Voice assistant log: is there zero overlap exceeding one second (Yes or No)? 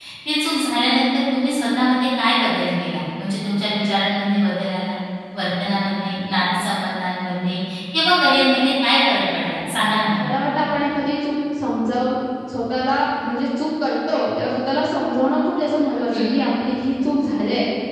Yes